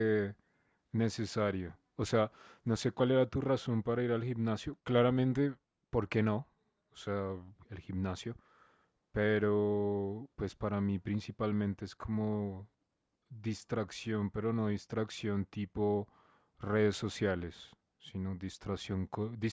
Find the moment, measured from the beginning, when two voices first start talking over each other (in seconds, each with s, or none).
none